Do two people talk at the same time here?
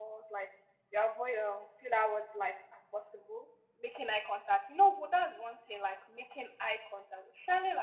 No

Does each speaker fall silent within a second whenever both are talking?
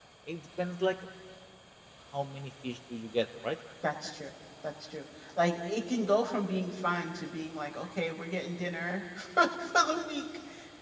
Yes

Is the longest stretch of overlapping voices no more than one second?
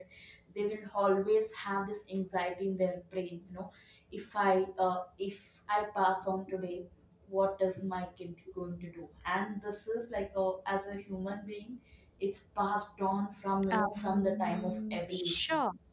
No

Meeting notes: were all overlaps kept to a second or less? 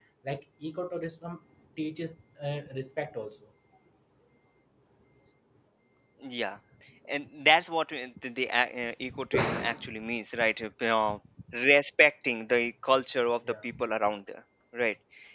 Yes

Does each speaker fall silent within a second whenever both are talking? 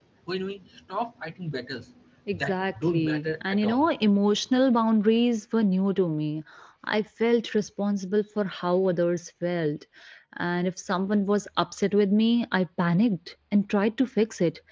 No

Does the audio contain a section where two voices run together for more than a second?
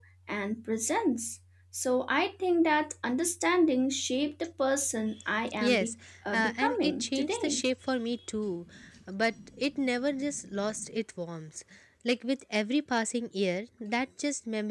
Yes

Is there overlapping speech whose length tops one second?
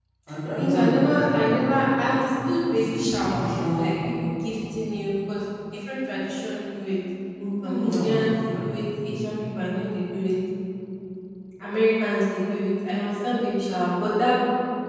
Yes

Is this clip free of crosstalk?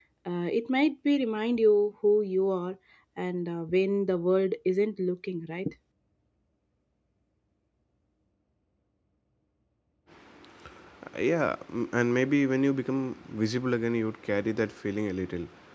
Yes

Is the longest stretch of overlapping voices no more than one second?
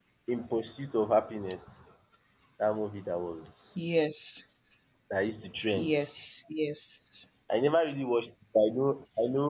Yes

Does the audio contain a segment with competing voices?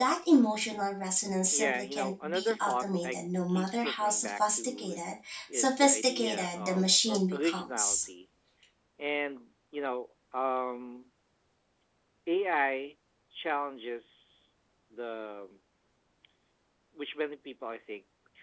Yes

